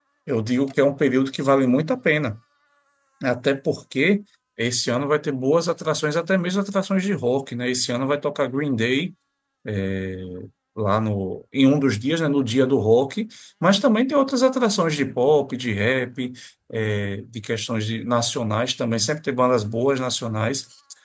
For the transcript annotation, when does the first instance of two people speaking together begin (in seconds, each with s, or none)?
none